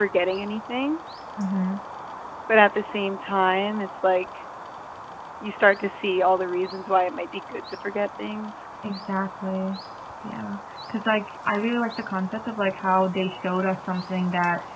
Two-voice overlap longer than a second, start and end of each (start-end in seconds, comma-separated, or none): none